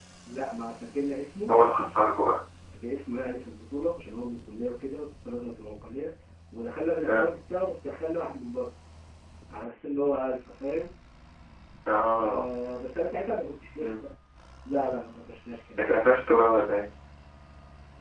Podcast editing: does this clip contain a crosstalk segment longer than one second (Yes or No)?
No